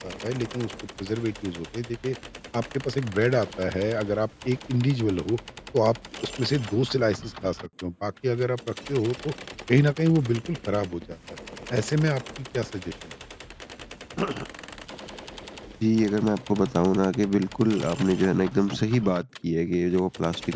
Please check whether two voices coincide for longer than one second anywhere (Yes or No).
No